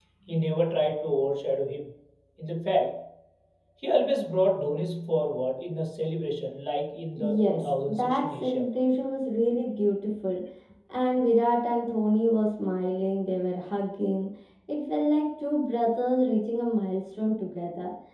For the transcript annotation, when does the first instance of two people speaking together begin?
7.2 s

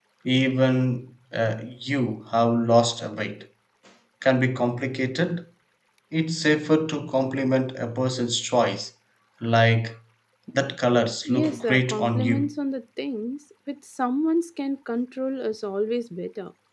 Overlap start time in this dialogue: 11.2 s

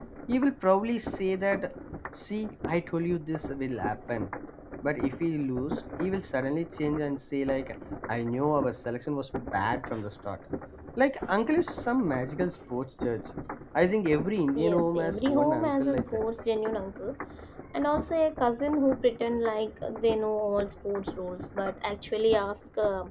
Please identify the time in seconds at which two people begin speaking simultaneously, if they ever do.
14.6 s

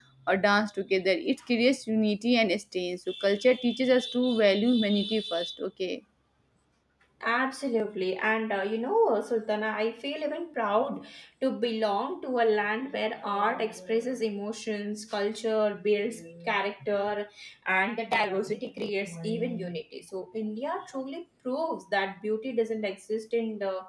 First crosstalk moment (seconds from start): none

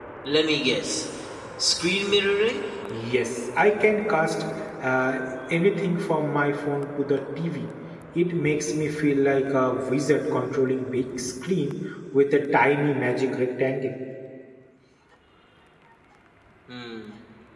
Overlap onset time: none

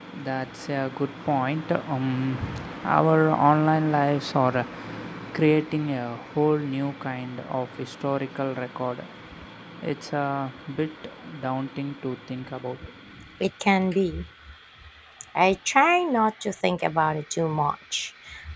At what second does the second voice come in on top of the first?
none

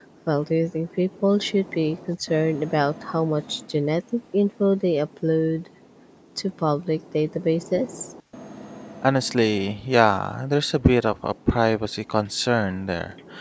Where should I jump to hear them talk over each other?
none

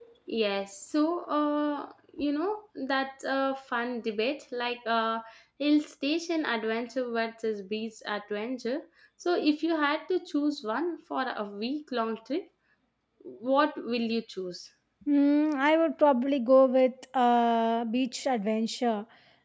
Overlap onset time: none

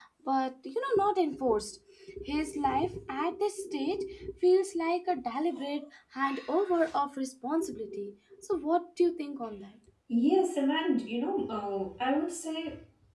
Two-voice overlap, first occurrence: none

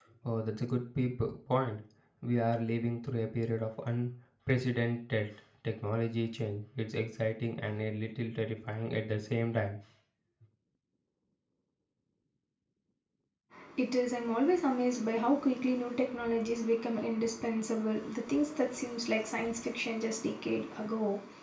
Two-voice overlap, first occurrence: none

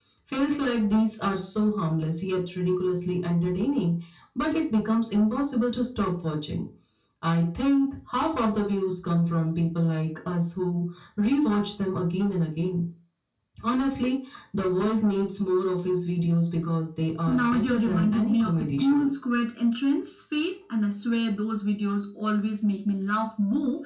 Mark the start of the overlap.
17.3 s

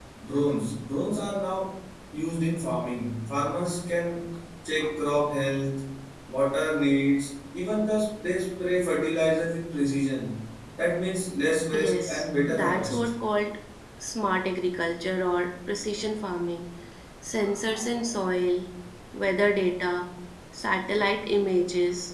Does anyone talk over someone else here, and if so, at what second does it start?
11.7 s

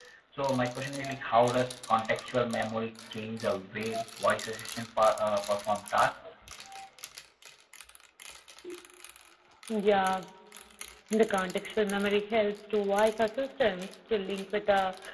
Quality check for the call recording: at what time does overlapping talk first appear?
none

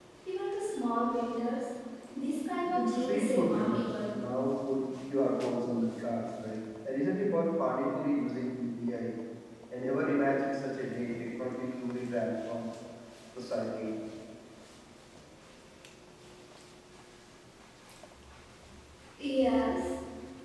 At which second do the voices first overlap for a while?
2.6 s

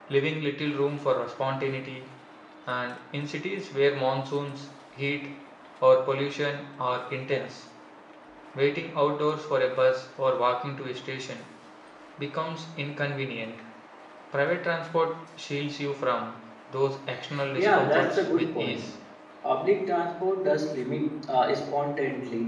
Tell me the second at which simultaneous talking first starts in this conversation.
17.6 s

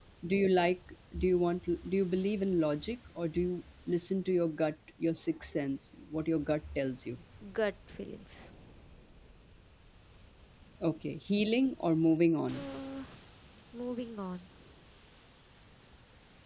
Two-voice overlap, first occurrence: none

